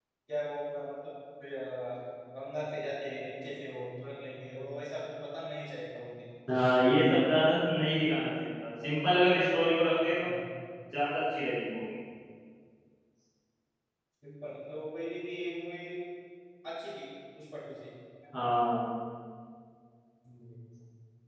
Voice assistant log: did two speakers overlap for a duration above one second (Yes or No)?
No